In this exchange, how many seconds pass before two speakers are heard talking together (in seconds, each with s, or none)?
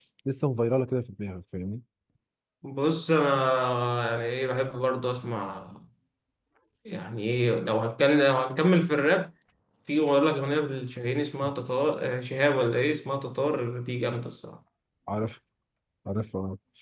none